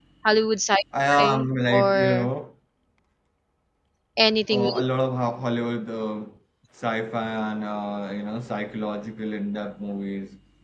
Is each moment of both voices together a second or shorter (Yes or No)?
No